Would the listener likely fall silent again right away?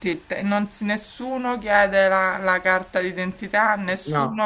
Yes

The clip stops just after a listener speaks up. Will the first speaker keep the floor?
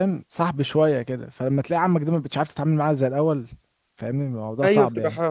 No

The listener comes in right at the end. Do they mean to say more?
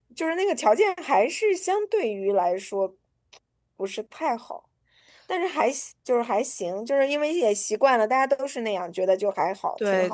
Yes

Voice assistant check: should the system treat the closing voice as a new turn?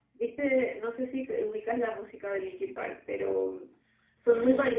Yes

